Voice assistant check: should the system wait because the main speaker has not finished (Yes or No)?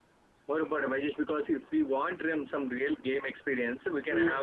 Yes